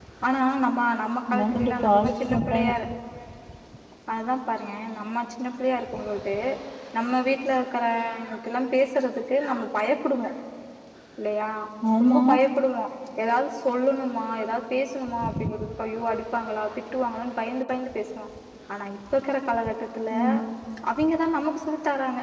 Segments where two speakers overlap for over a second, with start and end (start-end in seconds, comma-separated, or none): 1.3-2.7